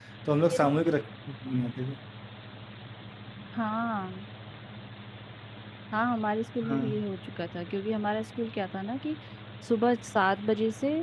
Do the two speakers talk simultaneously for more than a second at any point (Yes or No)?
No